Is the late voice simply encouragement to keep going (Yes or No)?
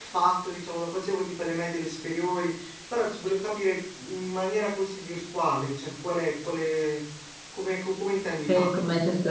No